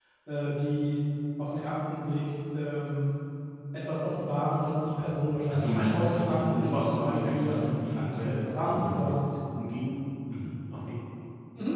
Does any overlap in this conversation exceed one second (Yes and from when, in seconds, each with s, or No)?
Yes, from 5.5 s